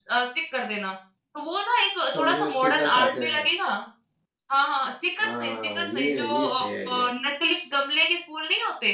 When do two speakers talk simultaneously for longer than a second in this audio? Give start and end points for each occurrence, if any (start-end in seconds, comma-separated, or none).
2.1-3.5, 5.2-7.1